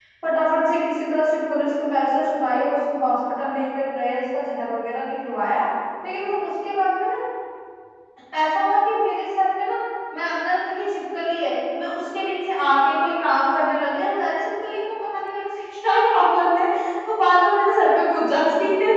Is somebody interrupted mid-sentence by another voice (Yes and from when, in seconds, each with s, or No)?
No